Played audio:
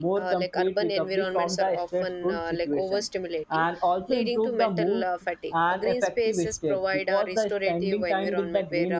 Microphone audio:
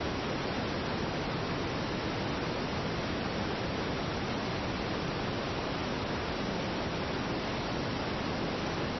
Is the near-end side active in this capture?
No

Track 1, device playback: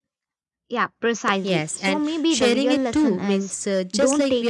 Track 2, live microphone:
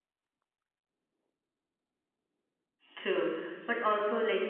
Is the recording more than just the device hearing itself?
Yes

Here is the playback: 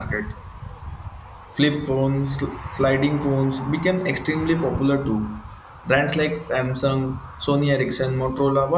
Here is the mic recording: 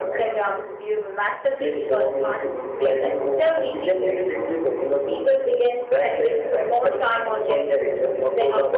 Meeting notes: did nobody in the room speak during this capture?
No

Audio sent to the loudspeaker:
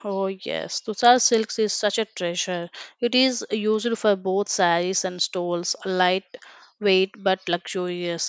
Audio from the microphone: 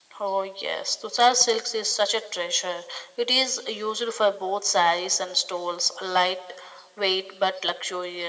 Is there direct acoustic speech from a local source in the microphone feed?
No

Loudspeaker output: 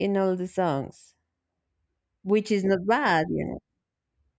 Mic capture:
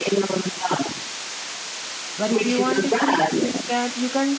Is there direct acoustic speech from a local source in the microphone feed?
Yes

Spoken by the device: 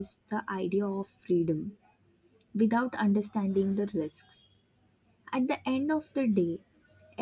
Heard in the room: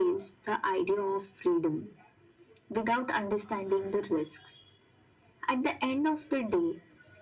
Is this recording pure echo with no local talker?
Yes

